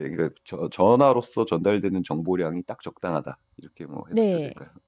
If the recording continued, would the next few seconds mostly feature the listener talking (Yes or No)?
Yes